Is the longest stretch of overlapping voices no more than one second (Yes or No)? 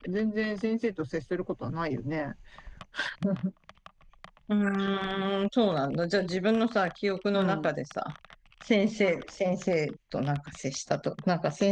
Yes